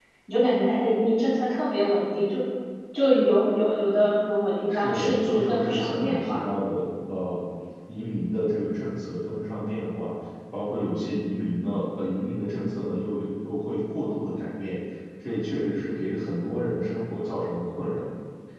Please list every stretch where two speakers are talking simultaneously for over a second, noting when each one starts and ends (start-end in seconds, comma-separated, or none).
4.7-6.4